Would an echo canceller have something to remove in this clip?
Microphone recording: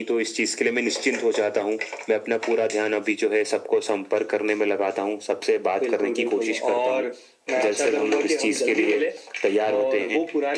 Yes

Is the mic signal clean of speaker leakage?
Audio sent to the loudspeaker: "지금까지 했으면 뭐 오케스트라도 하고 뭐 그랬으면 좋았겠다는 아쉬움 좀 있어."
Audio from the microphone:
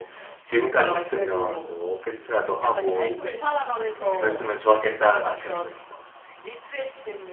No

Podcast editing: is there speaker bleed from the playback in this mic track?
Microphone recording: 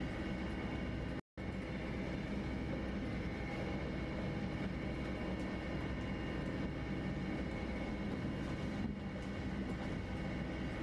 No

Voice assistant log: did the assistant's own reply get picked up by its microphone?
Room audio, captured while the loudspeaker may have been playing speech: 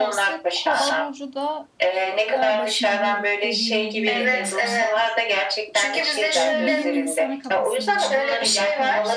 Yes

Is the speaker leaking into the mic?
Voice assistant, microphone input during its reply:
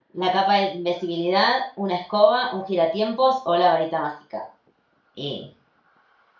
No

